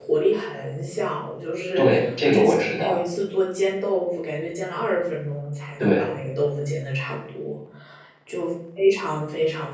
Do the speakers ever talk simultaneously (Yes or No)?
Yes